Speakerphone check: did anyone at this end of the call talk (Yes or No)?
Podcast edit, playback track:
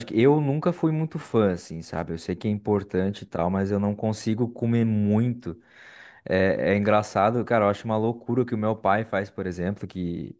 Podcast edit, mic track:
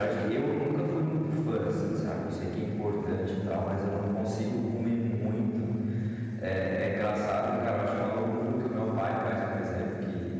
No